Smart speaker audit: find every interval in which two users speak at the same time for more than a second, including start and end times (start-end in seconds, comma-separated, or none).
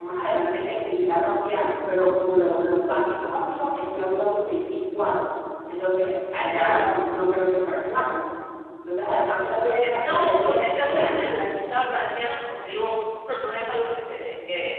9.6-11.3